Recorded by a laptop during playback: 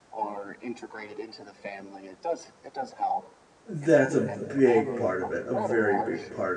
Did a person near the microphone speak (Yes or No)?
Yes